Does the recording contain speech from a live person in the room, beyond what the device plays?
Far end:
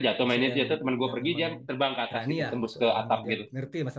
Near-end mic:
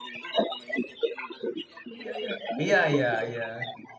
Yes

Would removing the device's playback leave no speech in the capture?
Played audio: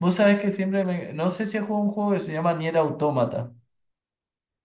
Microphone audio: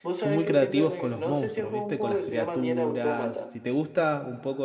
No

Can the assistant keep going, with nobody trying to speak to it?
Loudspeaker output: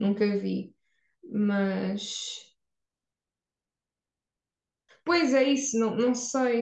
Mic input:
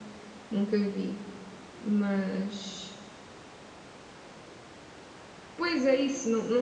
Yes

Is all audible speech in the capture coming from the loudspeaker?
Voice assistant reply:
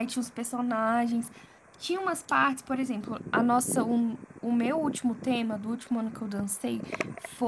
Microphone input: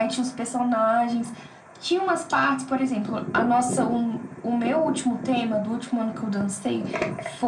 Yes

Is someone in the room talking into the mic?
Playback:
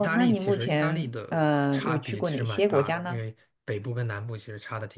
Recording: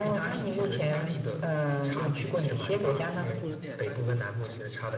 Yes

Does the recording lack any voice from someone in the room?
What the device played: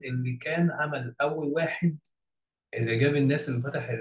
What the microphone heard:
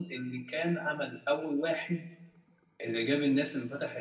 Yes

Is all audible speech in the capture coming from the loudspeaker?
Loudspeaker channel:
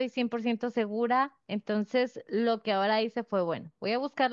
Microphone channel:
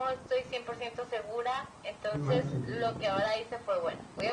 No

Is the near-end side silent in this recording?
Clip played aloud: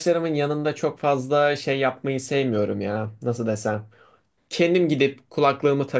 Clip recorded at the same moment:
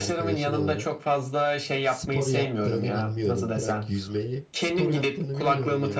No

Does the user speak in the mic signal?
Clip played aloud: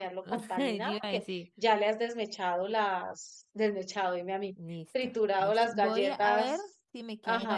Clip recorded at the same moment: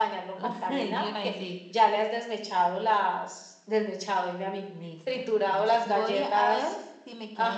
No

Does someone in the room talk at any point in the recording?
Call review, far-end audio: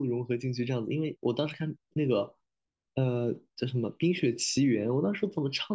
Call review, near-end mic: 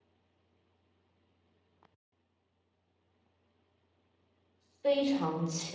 Yes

